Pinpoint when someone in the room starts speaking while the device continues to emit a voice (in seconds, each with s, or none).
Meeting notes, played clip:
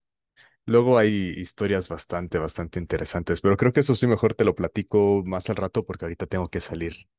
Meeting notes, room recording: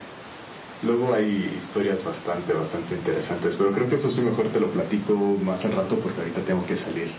none